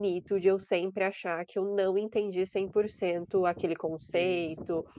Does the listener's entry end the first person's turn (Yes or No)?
No